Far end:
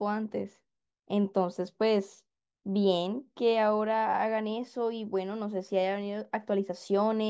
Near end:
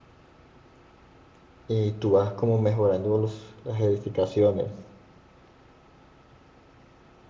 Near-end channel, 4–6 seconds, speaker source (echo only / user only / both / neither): user only